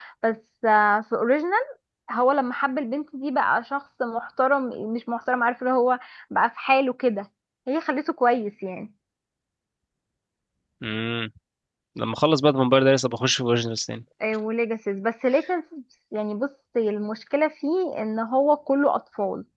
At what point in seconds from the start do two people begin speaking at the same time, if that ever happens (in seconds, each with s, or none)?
none